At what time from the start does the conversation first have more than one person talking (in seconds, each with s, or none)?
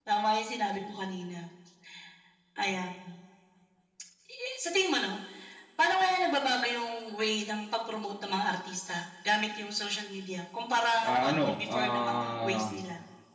11.0 s